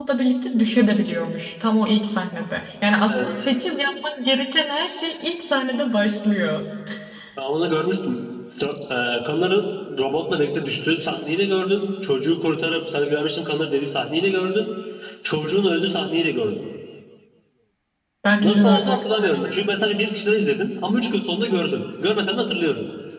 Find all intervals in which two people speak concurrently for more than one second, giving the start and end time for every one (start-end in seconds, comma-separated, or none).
18.4-19.7